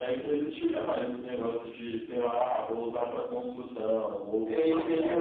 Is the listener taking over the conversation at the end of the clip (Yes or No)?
Yes